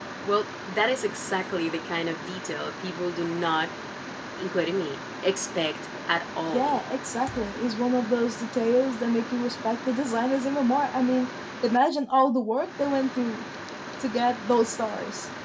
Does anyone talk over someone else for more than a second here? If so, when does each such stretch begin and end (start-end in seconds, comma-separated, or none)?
none